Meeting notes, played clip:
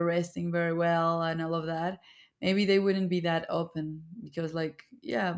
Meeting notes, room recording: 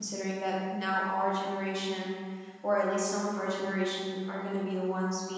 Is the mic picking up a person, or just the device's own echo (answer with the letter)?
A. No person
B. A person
B